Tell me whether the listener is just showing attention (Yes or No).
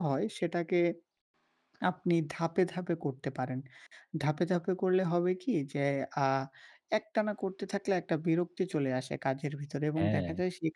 Yes